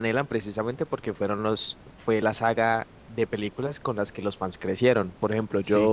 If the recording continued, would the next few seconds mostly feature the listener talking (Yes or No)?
Yes